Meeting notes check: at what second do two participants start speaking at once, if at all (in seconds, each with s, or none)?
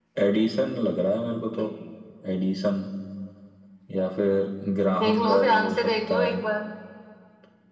4.9 s